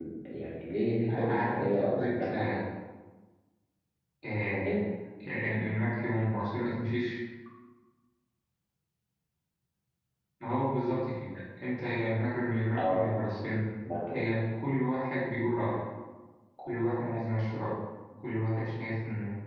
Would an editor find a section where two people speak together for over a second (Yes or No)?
Yes